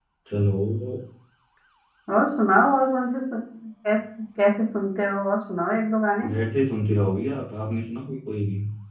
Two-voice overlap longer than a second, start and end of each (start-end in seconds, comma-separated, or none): none